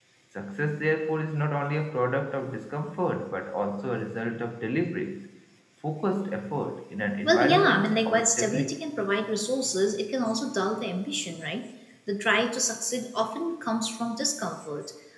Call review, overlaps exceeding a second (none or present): present